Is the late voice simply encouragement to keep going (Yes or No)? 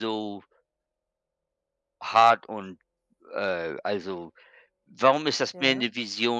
Yes